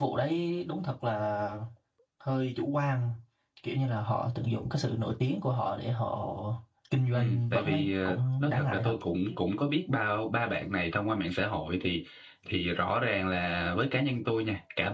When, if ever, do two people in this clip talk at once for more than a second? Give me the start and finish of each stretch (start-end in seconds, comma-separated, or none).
7.1-9.0